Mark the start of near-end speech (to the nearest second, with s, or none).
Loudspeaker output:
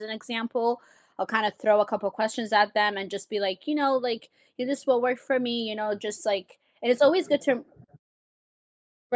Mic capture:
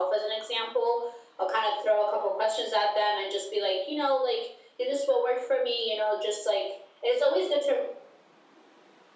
none